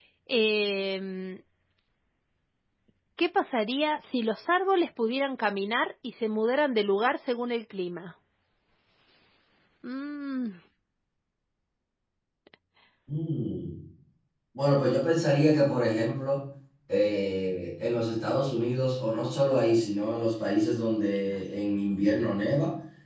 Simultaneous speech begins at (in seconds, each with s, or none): none